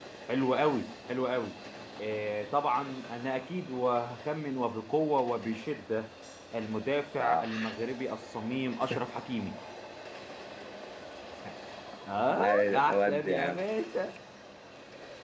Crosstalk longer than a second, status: present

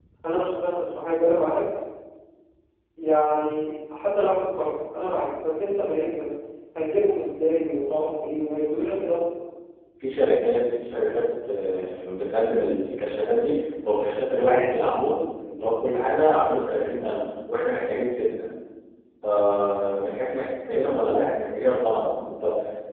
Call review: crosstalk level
none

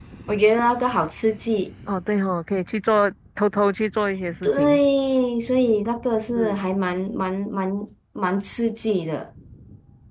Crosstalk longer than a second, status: none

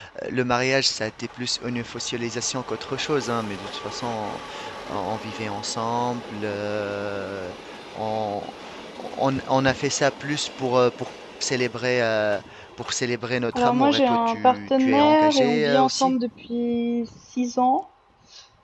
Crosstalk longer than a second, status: present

